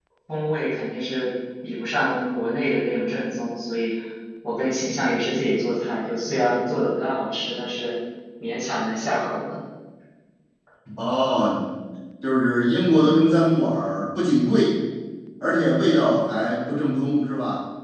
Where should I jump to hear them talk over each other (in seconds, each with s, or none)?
none